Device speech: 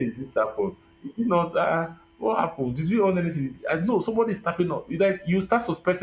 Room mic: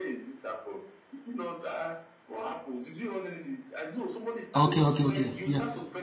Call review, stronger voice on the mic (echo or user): user